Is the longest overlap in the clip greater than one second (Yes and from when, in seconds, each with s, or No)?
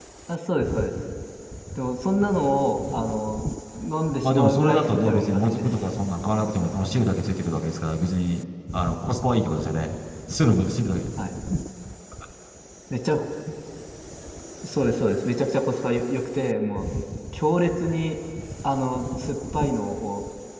Yes, from 4.2 s